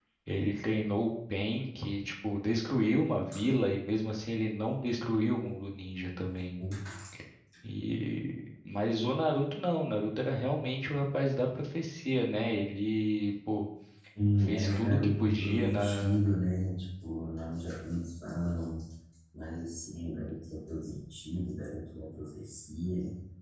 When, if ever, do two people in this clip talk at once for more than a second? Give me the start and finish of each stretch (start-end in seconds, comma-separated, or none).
14.4-16.2